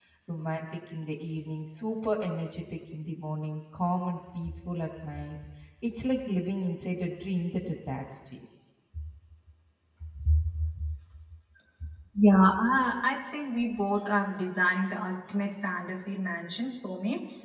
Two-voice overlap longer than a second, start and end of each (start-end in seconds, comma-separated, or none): none